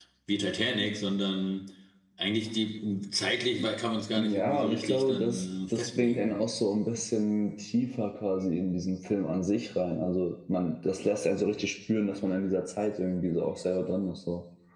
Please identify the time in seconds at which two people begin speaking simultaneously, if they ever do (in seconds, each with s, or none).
4.2 s